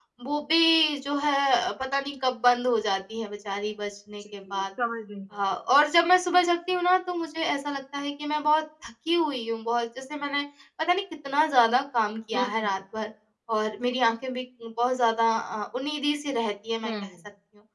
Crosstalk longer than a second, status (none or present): none